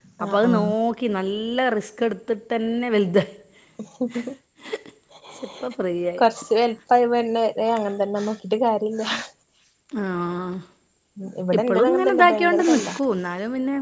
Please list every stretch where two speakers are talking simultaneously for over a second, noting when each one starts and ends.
11.6-12.9

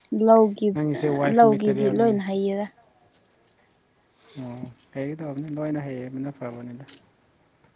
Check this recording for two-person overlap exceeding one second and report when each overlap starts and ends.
0.8-2.2

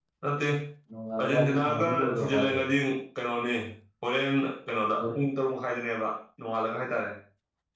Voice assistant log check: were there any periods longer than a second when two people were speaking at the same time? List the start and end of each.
1.2-2.6

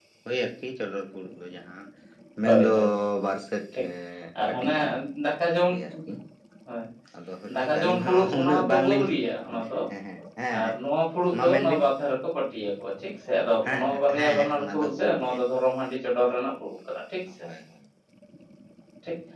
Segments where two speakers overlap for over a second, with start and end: 7.6-9.1, 13.7-15.4

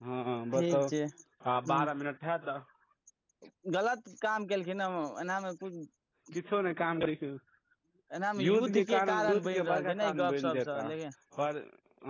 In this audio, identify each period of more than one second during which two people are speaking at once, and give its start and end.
8.4-10.9

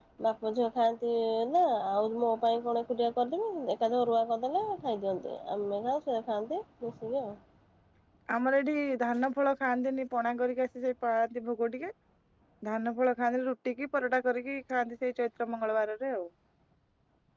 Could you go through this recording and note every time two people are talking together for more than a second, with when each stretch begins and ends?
none

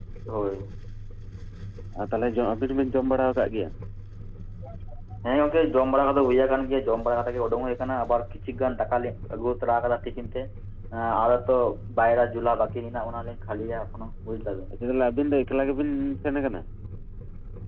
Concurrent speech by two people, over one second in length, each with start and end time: none

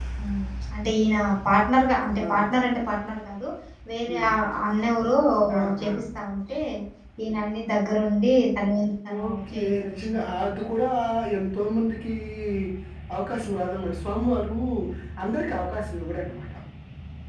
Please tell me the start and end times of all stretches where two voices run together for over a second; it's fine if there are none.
9.2-10.6

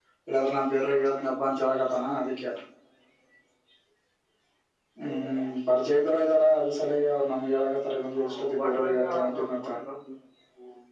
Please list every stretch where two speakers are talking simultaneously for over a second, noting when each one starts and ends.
8.2-9.8

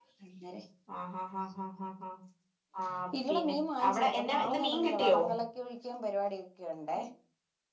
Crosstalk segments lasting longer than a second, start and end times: 3.9-5.2

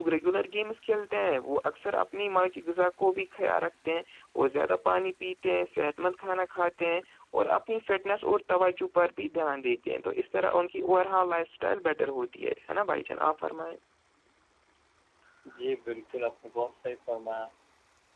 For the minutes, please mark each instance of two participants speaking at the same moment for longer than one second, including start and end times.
none

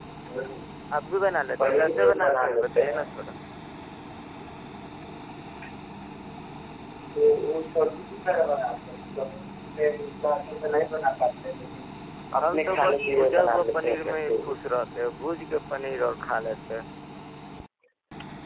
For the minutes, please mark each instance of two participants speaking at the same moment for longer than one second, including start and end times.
1.6-3.0, 12.4-14.5

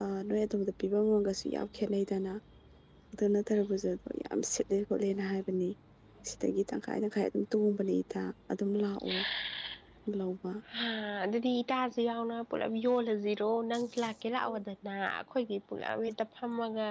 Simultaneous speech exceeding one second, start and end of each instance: none

